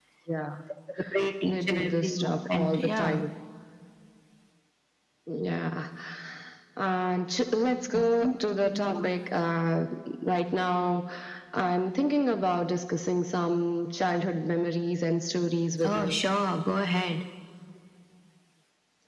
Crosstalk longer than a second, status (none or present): present